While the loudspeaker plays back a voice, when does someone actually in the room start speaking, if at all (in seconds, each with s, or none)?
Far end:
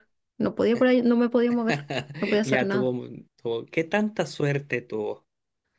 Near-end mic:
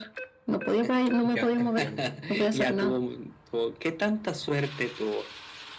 1.2 s